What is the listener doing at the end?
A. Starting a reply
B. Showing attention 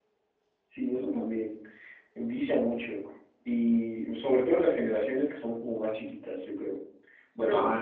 B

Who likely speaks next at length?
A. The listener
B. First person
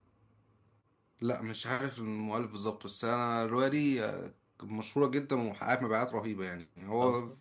B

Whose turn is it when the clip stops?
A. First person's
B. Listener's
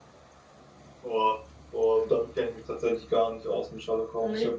A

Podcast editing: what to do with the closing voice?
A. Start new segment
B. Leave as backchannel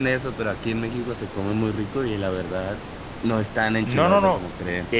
A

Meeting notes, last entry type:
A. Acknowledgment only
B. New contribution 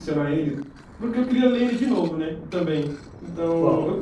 A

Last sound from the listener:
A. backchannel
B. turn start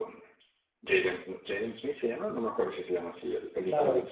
B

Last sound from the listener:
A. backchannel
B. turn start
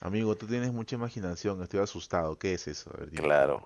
B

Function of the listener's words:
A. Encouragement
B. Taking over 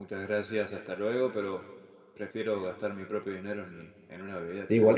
B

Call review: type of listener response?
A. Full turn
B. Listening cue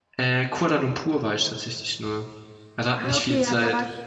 A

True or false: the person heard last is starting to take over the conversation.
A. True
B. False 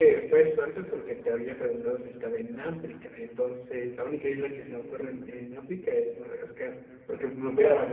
B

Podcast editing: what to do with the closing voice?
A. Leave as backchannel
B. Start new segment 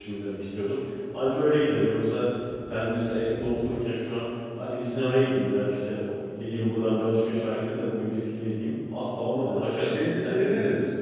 B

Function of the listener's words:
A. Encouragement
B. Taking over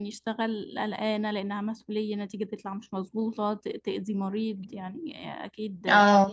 A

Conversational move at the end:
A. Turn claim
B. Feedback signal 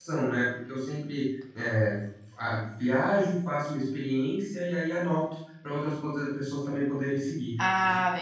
A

